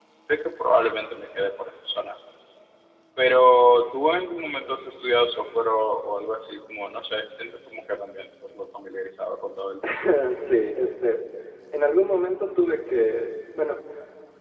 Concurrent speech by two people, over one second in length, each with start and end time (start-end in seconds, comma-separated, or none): none